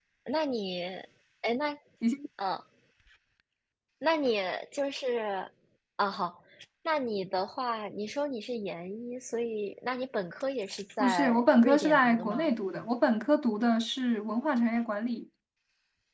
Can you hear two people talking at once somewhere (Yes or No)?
Yes